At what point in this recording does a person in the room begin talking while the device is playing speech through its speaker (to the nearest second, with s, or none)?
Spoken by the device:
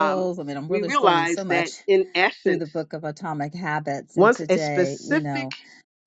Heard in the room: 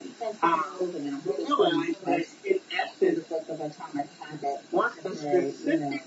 none